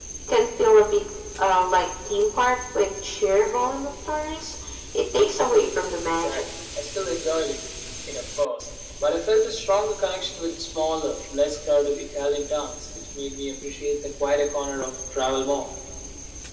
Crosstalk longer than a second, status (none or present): none